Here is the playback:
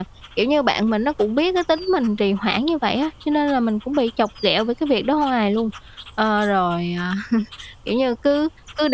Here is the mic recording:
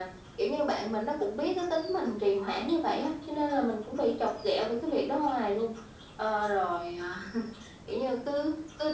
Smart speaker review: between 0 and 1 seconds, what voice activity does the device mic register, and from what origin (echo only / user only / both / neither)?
echo only